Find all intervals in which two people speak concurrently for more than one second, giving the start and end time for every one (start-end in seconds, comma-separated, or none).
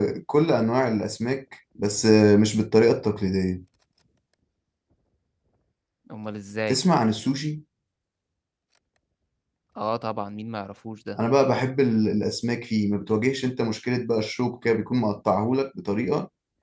none